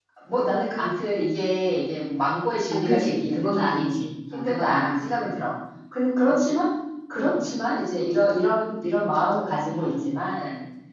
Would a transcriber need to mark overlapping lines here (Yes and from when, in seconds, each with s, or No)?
Yes, from 2.7 s